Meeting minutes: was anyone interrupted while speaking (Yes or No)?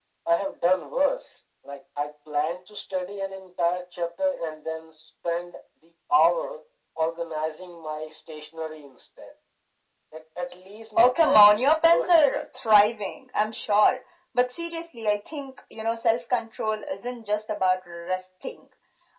Yes